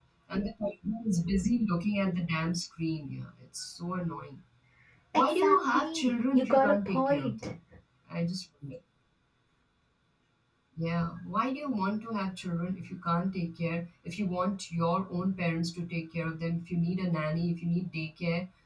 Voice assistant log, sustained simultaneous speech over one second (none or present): present